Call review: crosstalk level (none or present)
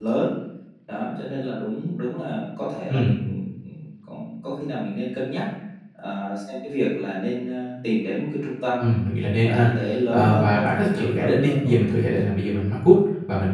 present